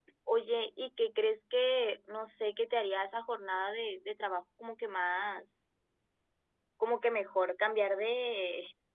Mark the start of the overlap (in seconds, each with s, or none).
none